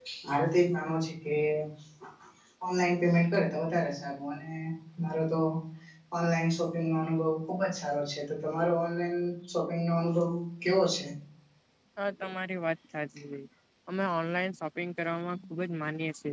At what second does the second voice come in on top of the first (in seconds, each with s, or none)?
none